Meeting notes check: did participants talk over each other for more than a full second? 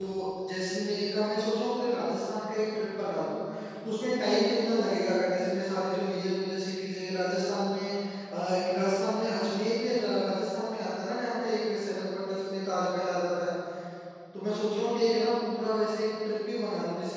No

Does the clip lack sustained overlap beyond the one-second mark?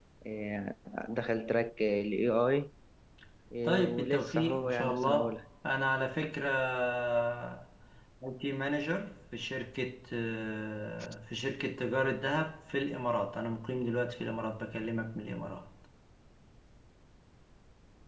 No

